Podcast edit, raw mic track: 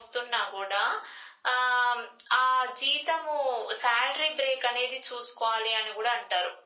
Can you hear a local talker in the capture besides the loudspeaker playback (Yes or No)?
No